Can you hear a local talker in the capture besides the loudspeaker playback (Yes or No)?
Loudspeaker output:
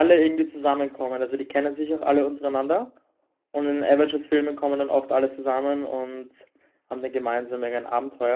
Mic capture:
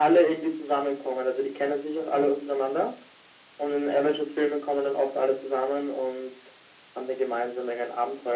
No